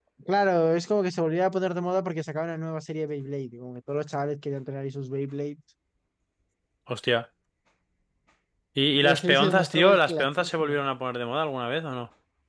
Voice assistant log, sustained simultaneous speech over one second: present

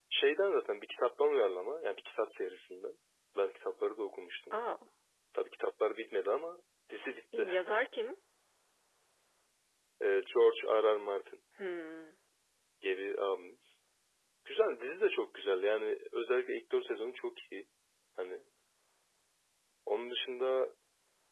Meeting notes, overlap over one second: none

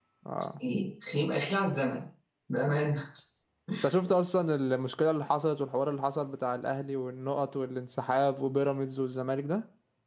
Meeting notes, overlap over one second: none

